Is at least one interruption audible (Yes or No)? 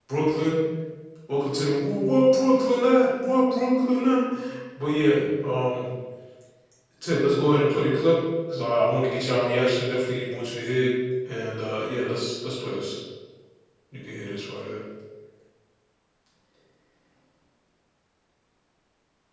No